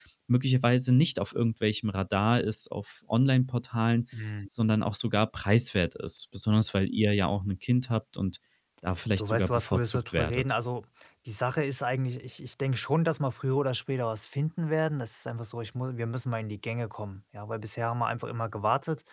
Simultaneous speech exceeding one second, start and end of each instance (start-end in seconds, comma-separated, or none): 9.2-10.4